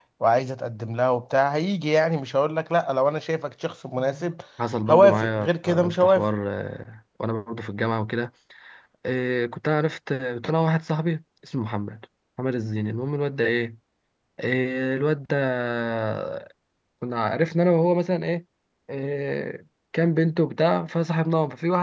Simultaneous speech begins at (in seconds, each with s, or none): 4.9 s